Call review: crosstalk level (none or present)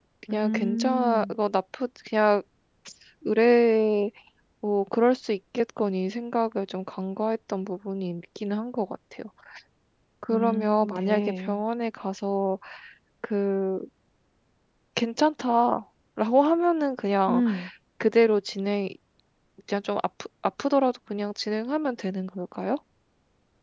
present